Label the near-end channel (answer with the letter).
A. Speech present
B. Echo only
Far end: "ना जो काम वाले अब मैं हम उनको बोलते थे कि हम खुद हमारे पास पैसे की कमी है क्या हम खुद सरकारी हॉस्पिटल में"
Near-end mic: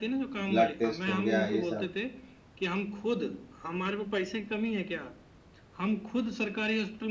A